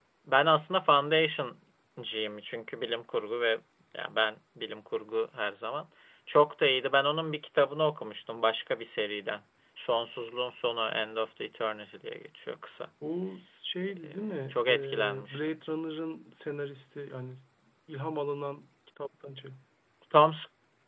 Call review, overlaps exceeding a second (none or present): present